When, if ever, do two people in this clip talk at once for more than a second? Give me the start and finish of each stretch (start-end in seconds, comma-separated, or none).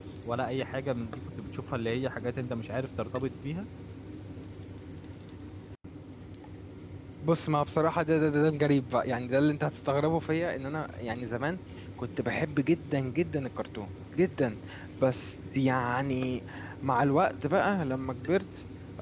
none